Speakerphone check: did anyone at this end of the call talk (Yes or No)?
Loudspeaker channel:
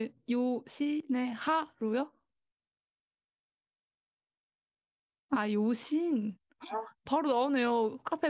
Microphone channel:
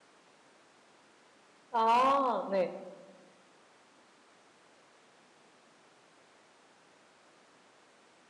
Yes